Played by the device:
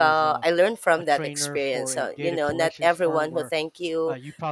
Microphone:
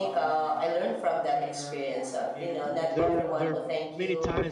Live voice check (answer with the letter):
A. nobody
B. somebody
B